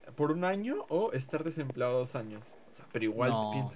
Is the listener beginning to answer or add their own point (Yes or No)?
No